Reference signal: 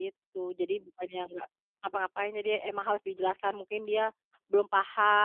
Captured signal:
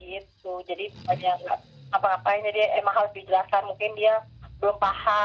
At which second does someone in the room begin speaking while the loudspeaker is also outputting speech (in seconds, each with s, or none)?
none